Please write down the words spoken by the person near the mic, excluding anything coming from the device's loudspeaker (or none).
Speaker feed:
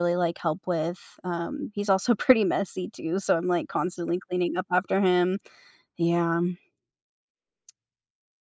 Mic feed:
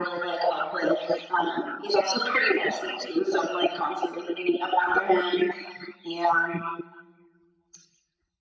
none